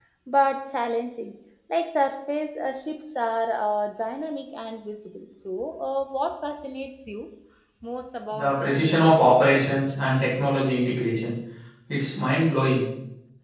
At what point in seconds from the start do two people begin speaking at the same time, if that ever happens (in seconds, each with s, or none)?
8.3 s